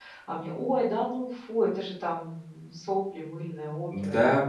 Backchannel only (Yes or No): No